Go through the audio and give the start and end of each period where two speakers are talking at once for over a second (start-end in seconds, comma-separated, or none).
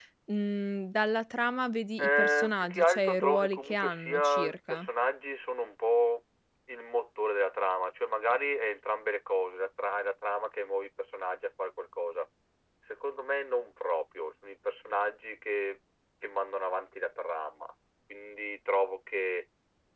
2.0-4.9